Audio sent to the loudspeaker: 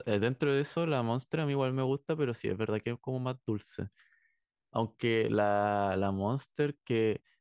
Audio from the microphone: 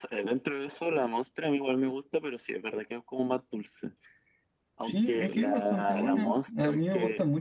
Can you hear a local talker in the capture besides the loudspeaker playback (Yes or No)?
Yes